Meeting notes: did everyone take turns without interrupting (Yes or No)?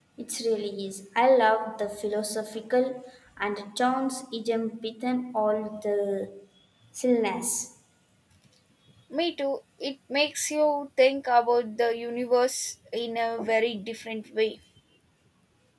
Yes